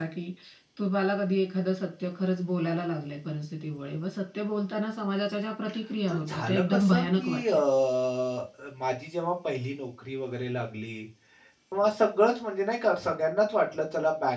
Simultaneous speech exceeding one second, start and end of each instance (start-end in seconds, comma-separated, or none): 6.1-7.6